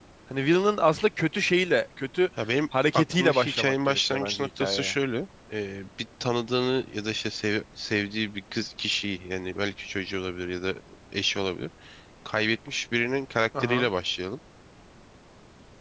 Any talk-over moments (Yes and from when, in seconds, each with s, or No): Yes, from 2.9 s